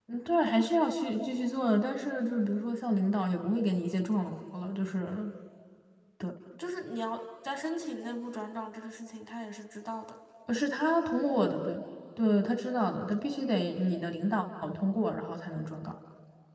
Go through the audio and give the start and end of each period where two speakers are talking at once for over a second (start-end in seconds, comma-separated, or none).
none